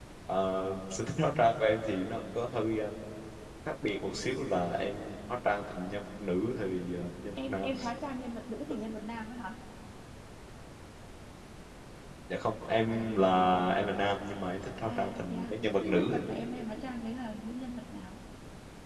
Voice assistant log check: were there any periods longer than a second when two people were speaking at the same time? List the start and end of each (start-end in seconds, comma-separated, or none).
14.9-16.2